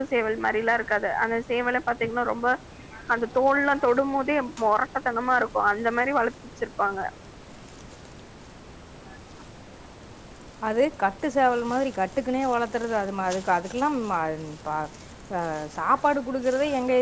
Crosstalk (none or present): none